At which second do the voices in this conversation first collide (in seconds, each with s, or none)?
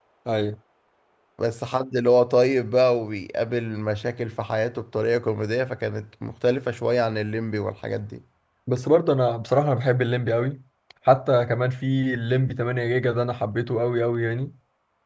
none